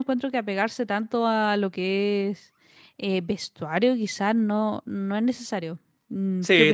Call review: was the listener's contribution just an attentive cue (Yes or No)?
No